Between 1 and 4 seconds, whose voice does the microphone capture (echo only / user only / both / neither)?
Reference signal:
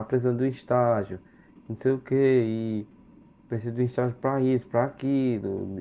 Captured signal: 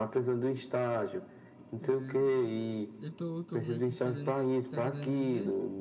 both